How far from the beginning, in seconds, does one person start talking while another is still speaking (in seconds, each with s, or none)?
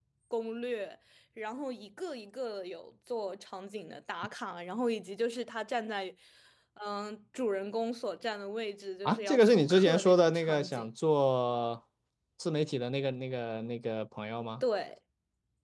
9.0 s